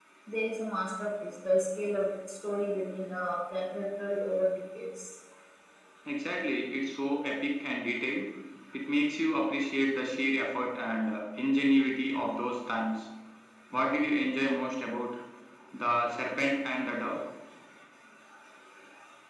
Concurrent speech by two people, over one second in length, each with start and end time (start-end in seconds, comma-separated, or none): none